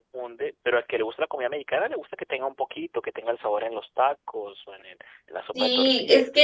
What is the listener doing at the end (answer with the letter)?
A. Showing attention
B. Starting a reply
B